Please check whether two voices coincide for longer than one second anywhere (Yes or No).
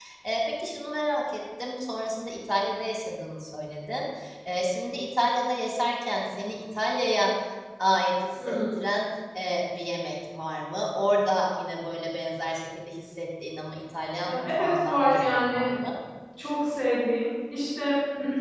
Yes